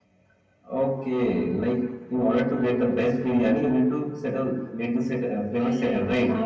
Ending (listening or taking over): taking over